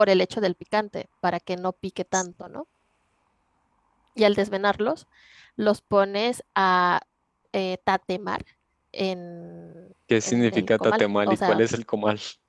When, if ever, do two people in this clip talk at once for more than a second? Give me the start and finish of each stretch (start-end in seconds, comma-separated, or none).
10.2-11.6